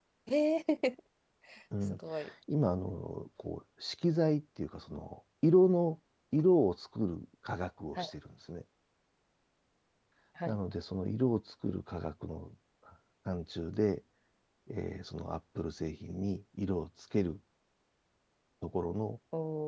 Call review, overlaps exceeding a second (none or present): none